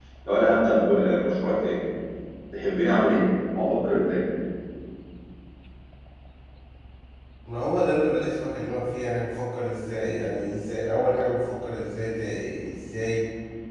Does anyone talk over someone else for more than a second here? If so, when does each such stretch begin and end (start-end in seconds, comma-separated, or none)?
none